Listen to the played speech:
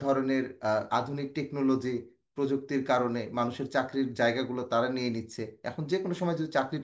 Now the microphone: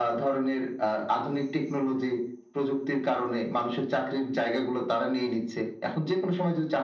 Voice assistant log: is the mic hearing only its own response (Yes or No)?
Yes